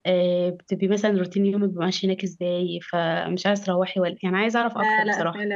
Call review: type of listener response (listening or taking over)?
taking over